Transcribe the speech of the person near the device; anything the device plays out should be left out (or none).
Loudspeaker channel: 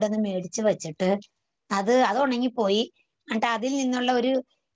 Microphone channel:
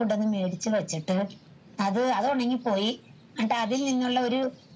none